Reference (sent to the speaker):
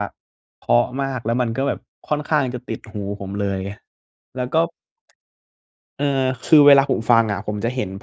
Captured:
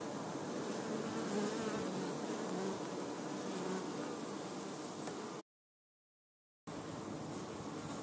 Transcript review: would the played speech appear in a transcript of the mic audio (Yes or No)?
No